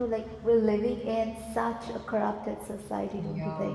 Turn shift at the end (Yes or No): Yes